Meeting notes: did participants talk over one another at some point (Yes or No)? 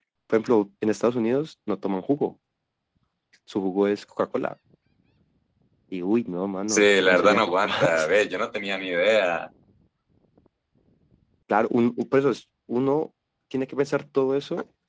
Yes